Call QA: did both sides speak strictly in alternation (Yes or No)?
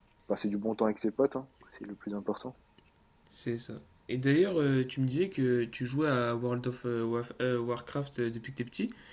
Yes